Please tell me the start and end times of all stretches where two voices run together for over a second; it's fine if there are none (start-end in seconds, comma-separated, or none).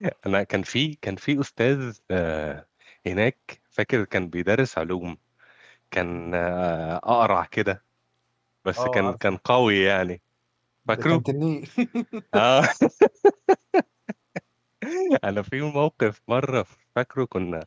none